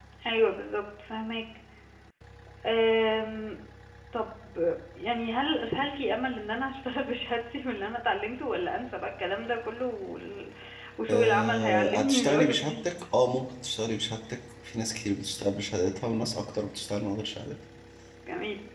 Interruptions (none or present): present